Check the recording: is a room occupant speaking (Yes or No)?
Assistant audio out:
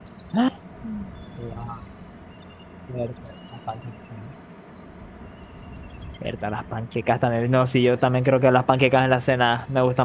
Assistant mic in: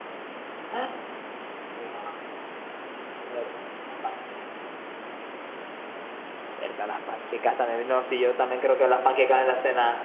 No